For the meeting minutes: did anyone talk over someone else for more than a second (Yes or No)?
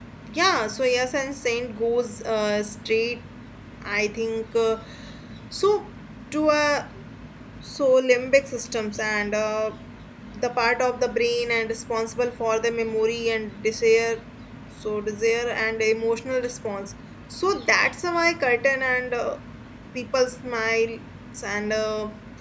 No